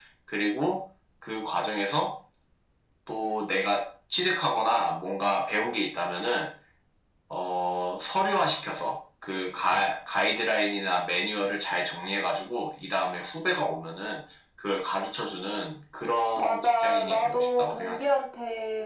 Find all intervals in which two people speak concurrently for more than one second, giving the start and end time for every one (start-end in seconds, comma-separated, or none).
16.4-18.0